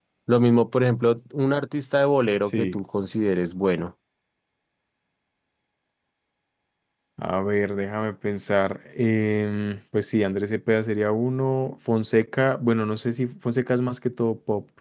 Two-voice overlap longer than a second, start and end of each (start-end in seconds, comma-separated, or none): none